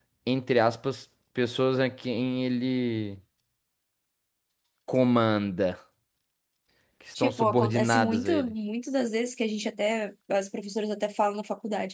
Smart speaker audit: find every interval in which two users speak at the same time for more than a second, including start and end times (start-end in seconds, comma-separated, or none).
7.2-8.5